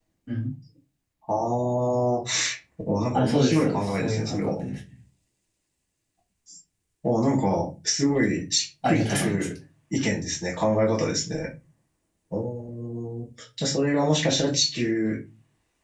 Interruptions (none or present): present